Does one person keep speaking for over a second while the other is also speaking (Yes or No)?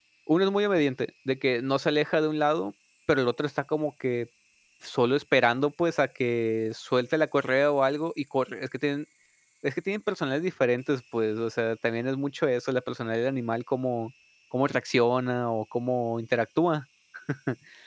No